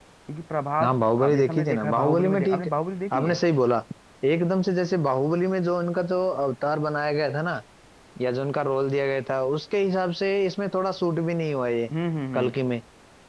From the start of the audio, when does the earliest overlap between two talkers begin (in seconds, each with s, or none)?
0.8 s